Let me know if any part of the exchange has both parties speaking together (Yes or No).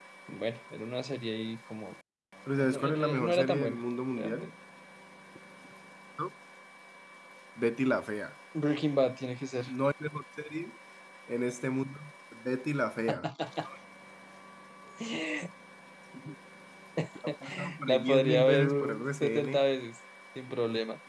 Yes